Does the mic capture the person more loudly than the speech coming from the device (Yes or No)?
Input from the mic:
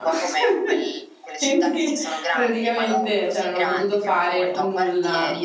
Yes